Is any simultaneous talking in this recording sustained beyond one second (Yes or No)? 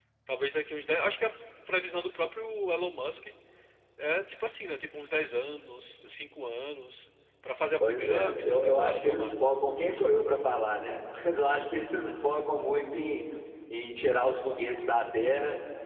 Yes